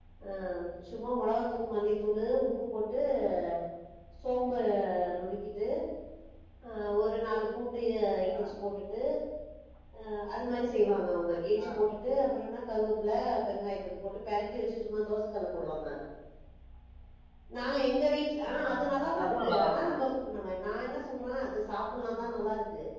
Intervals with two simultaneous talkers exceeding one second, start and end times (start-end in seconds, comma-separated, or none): 18.5-19.9